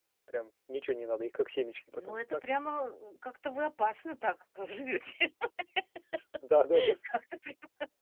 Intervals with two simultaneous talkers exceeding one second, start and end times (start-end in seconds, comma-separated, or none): none